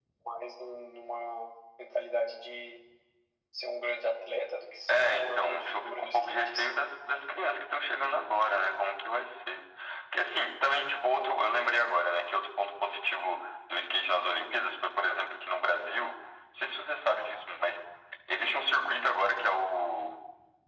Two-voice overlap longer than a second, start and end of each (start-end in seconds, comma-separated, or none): 4.9-6.8